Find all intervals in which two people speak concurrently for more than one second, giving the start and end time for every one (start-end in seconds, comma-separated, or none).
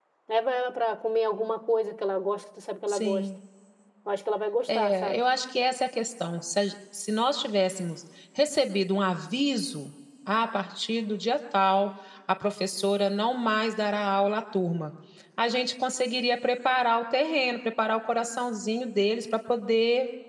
none